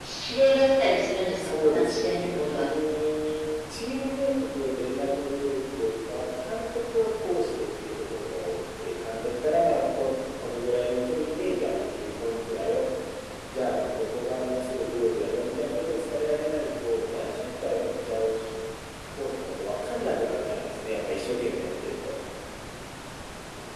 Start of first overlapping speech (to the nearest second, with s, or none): 1 s